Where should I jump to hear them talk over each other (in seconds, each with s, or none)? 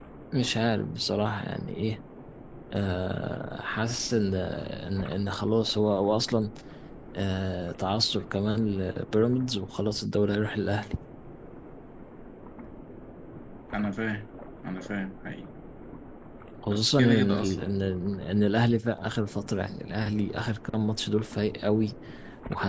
16.7 s